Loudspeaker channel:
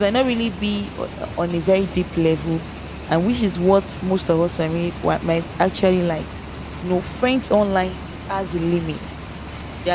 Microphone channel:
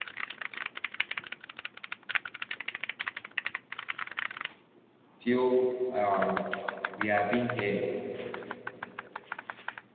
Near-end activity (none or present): present